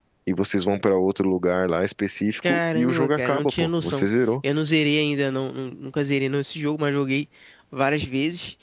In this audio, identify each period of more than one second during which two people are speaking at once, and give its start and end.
2.4-4.1

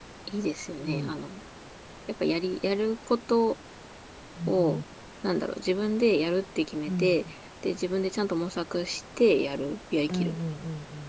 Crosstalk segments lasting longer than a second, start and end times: none

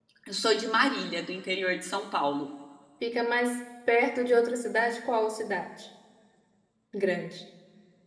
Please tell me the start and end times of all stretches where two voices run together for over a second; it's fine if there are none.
none

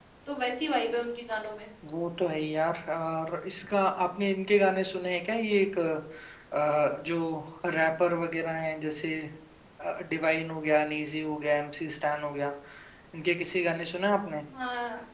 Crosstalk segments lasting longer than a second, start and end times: none

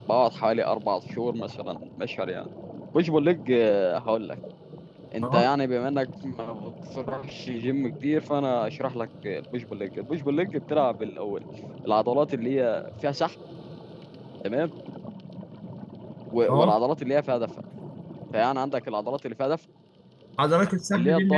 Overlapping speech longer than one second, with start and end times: none

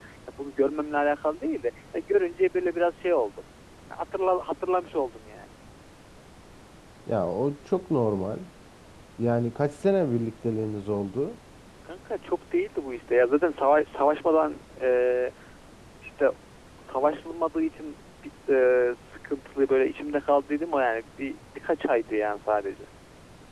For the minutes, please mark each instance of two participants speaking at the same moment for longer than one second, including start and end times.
none

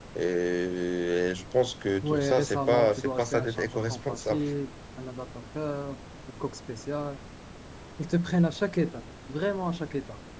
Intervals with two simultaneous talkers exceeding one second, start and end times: 2.0-4.4

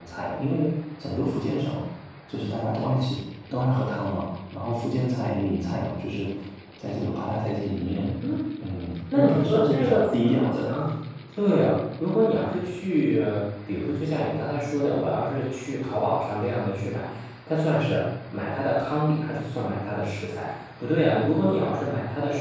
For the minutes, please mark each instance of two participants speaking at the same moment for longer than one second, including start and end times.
9.1-10.7

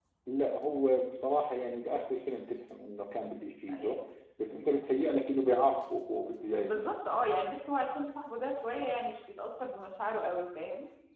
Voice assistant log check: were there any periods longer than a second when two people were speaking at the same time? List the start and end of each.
none

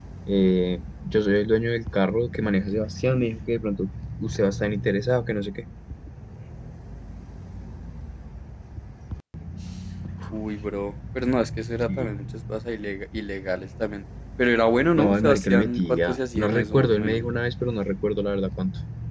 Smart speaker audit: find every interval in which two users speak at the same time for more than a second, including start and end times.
15.0-17.2

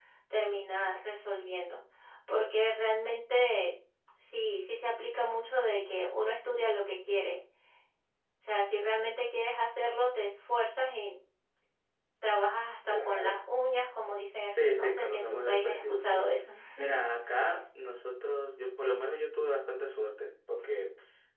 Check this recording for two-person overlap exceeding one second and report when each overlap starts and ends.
14.5-16.3

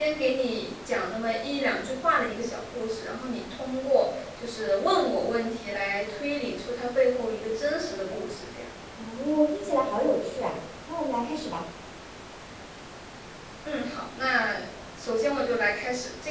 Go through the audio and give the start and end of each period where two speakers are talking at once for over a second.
none

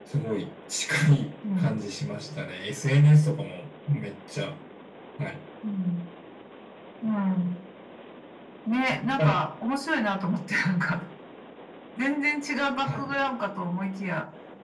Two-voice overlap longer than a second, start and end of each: none

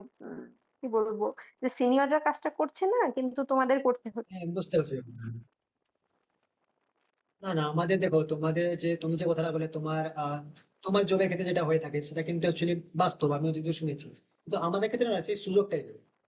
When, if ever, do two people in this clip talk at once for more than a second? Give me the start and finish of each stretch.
none

